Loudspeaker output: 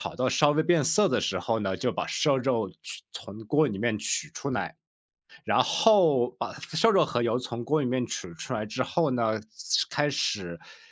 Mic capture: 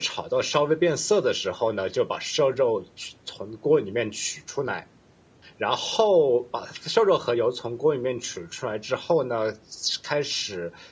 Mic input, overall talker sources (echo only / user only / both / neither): echo only